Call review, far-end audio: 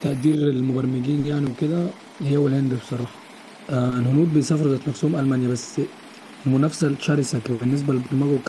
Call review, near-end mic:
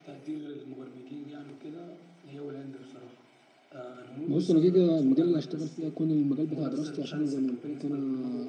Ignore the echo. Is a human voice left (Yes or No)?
Yes